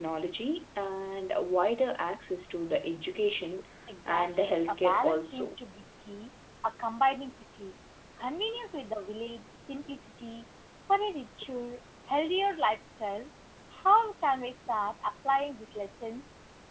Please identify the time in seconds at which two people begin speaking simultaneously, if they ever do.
4.1 s

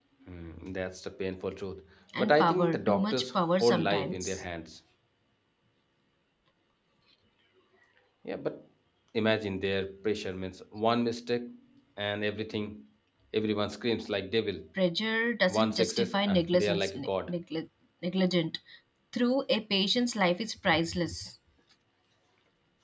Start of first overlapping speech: 2.2 s

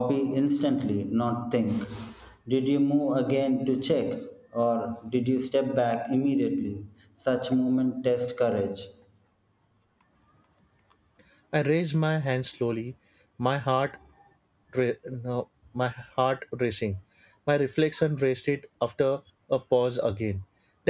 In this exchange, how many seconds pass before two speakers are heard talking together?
none

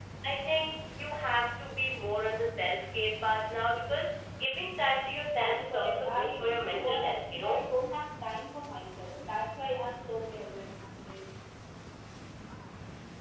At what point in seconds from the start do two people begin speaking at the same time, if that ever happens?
5.3 s

